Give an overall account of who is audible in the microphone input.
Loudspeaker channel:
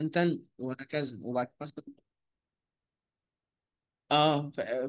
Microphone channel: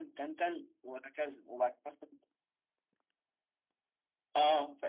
echo only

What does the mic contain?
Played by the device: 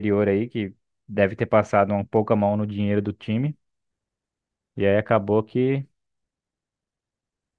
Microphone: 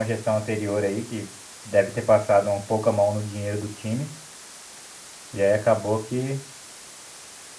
echo only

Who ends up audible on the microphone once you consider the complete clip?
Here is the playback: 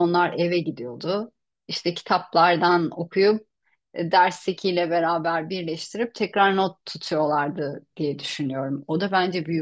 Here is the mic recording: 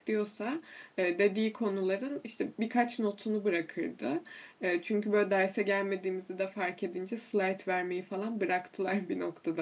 user only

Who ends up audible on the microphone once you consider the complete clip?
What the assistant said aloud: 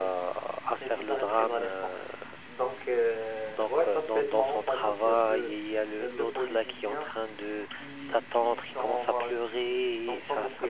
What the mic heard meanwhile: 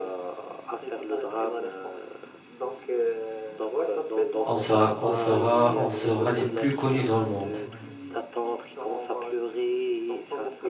both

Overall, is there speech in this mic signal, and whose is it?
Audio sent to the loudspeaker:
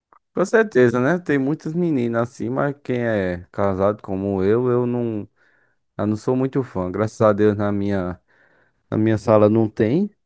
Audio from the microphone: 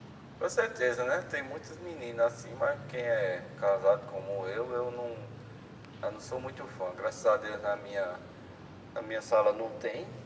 echo only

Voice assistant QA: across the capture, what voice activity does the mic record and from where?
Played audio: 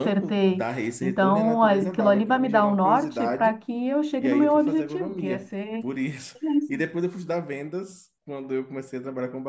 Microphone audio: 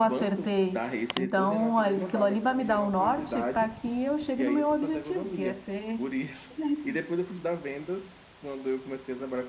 echo only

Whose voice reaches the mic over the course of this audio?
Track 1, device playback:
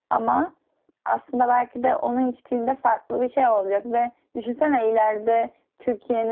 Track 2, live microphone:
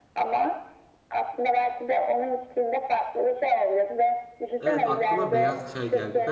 both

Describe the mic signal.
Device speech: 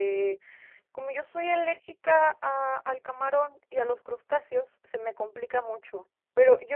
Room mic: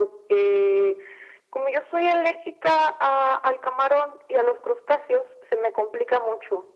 echo only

